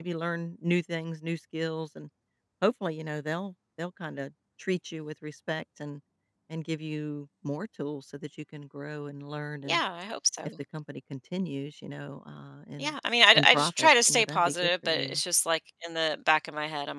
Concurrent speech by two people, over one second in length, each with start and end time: 13.3-15.2

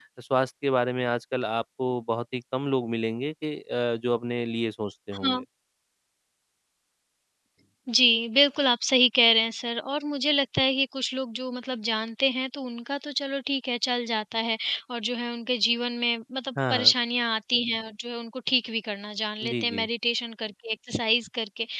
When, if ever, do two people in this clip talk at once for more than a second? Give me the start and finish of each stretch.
none

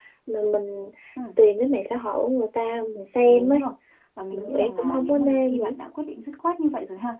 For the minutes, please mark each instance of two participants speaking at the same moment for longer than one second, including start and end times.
4.3-5.7

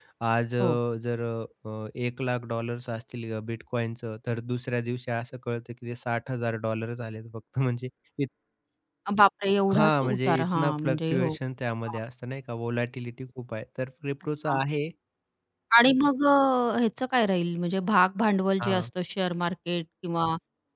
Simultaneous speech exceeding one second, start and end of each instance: 9.7-11.3

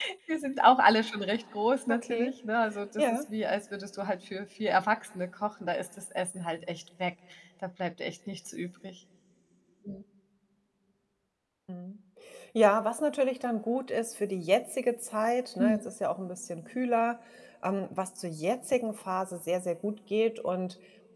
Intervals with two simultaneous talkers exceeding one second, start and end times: none

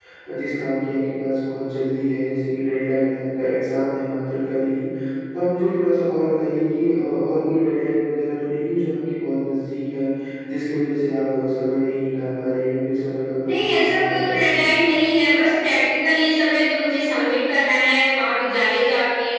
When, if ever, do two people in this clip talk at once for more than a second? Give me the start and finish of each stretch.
13.5-14.7

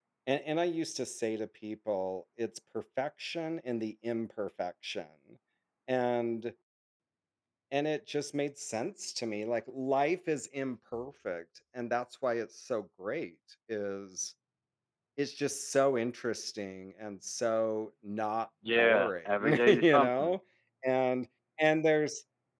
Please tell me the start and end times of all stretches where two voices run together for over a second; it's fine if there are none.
18.8-20.4

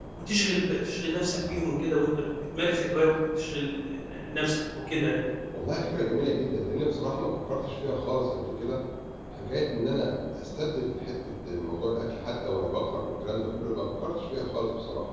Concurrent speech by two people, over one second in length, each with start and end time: none

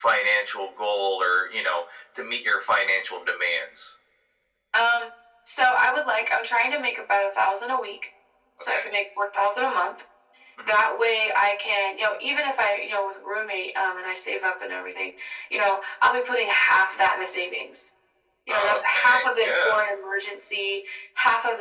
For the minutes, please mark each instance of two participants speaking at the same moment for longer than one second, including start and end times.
18.5-19.8

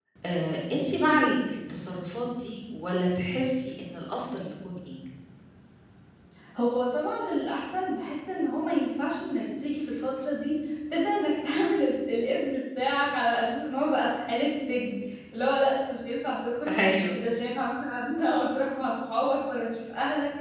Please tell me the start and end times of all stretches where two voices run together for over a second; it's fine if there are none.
none

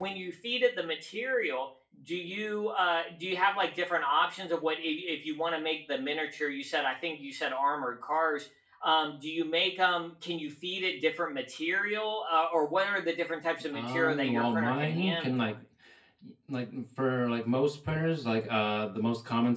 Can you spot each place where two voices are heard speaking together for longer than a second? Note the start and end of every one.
13.7-15.5

